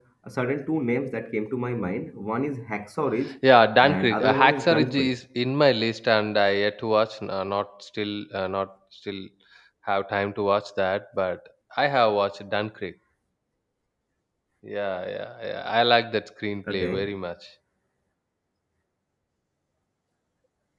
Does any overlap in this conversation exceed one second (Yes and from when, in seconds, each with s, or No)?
Yes, from 3.8 s